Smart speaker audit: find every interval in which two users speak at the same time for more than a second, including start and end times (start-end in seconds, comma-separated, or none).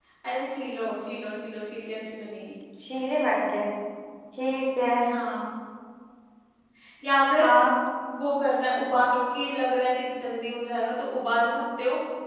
none